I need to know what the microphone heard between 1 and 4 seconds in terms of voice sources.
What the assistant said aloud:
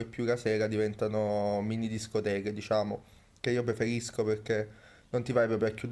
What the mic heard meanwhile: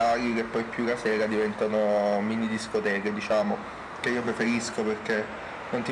echo only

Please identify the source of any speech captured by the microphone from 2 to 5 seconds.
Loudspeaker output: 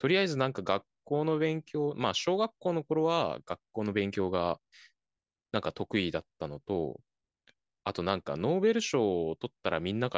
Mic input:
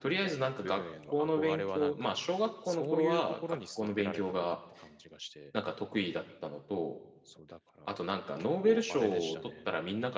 both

